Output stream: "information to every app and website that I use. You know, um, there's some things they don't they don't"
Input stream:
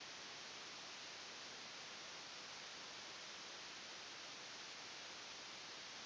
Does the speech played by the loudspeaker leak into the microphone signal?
No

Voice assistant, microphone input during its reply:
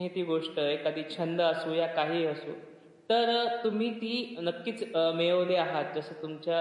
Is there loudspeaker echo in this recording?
No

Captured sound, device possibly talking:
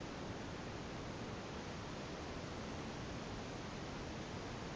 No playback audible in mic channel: Yes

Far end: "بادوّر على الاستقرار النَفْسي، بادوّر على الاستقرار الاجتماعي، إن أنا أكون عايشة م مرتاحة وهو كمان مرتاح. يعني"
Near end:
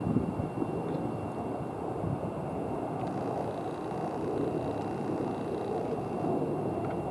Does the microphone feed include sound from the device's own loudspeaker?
No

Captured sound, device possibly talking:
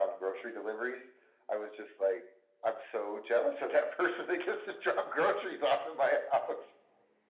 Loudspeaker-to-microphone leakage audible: Yes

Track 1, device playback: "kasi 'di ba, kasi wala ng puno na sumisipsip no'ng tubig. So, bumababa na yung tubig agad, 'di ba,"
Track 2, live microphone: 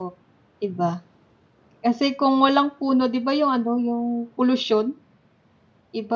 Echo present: No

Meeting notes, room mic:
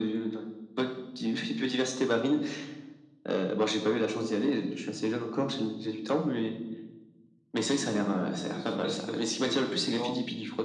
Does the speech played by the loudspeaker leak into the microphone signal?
Yes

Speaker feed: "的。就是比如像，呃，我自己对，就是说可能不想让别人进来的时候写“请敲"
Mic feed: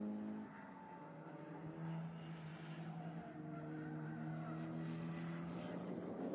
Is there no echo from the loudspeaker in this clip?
Yes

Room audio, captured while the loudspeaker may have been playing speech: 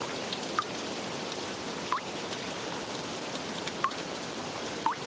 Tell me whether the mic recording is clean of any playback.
Yes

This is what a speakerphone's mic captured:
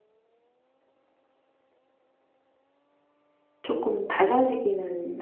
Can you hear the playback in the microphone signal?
No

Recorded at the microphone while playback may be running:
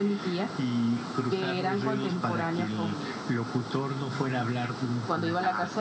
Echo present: Yes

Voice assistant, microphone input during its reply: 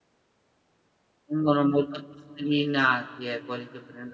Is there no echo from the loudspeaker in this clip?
Yes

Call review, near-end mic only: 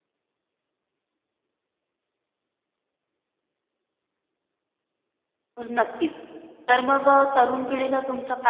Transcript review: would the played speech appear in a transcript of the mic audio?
No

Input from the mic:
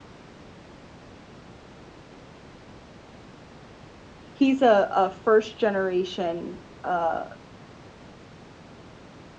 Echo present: No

